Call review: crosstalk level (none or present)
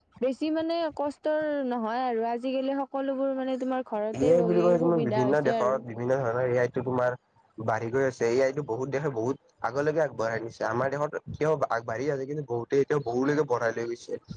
present